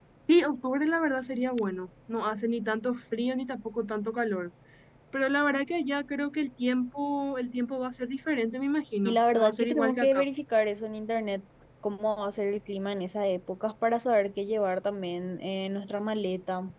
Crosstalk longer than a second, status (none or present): present